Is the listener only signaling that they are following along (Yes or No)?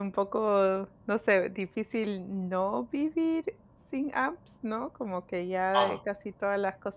Yes